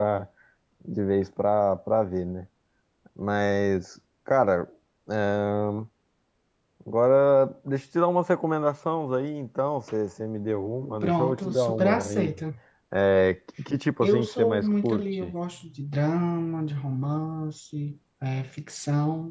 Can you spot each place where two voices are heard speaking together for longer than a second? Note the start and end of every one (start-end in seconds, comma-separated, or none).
11.0-12.3, 14.0-15.3